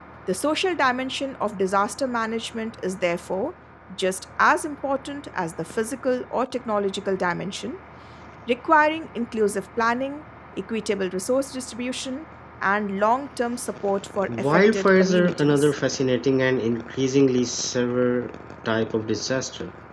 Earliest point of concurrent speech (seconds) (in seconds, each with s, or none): 14.3 s